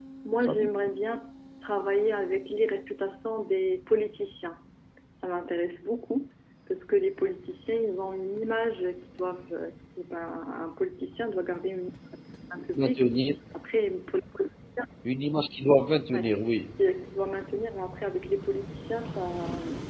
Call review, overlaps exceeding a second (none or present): none